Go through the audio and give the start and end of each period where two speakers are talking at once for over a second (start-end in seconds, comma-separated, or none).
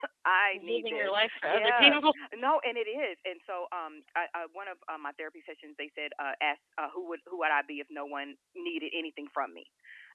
0.5-2.0